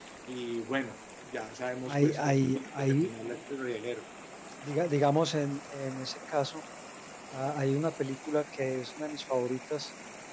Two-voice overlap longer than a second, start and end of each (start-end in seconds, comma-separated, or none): 1.9-3.1